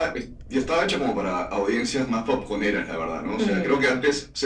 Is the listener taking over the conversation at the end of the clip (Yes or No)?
No